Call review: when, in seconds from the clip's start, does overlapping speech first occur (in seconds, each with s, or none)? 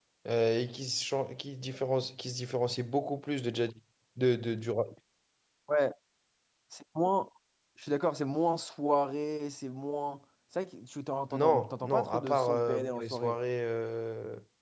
11.3 s